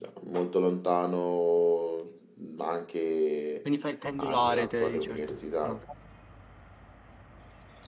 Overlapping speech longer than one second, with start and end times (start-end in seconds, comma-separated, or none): 4.2-5.8